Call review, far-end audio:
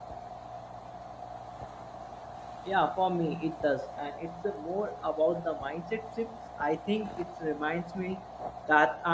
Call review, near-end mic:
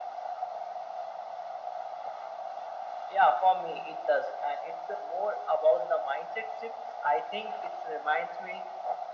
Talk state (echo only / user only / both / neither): echo only